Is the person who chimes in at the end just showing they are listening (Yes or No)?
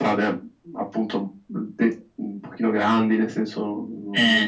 Yes